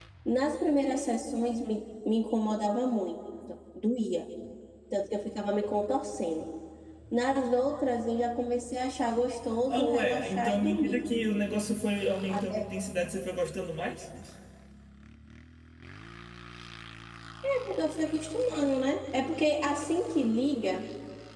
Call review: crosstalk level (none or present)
present